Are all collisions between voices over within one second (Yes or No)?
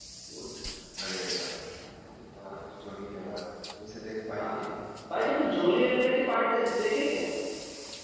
Yes